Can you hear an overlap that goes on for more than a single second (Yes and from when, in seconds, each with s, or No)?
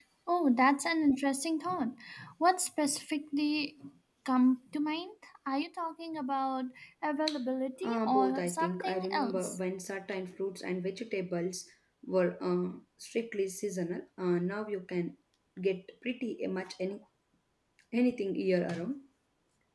Yes, from 7.8 s